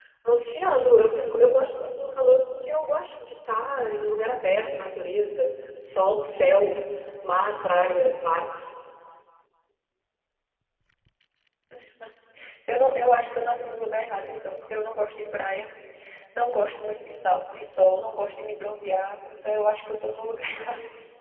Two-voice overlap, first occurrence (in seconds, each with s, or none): none